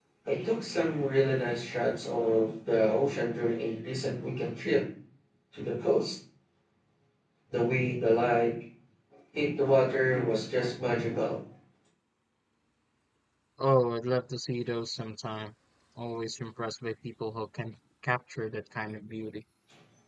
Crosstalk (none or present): none